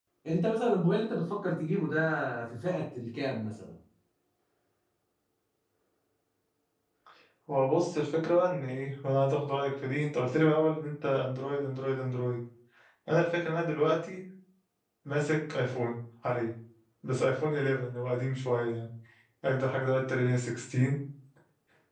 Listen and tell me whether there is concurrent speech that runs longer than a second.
No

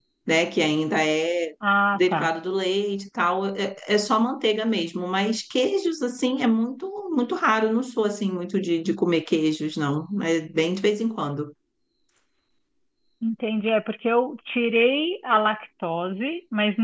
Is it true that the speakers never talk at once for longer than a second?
Yes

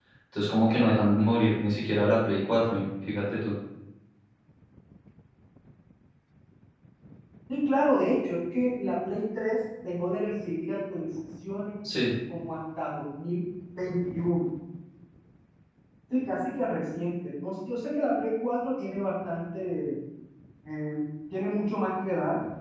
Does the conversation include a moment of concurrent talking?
No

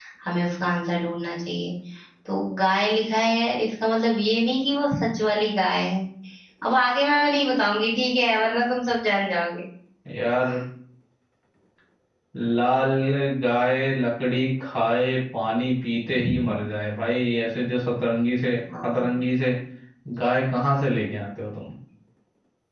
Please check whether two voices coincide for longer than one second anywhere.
No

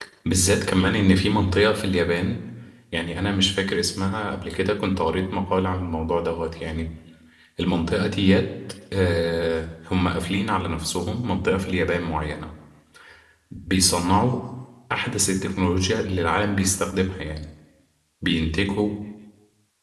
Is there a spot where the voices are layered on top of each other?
No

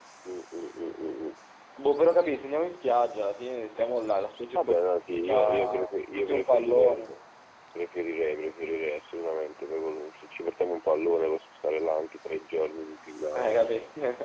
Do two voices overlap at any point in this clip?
Yes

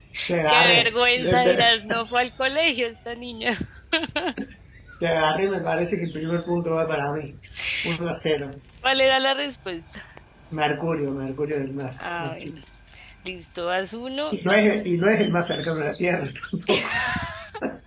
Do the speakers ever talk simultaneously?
Yes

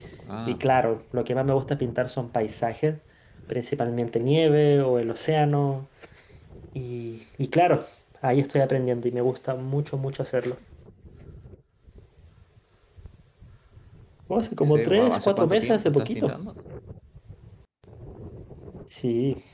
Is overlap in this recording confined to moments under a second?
No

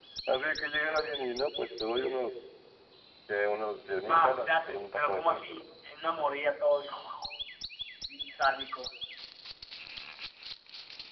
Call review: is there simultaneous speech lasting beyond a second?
Yes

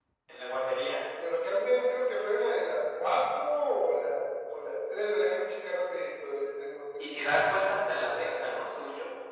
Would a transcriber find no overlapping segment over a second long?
No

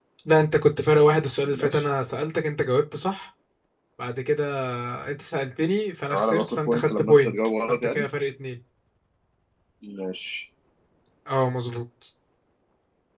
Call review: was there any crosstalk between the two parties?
Yes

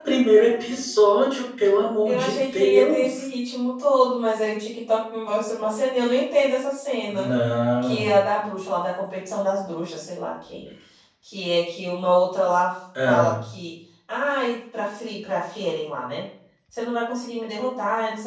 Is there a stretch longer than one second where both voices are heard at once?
Yes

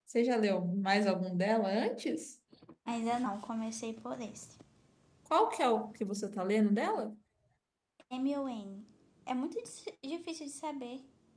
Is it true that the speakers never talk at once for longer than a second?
Yes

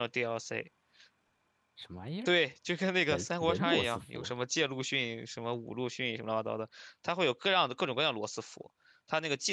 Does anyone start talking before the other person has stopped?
Yes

